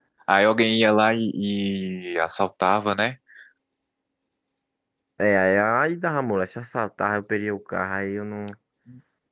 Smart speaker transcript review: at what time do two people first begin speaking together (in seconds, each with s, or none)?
none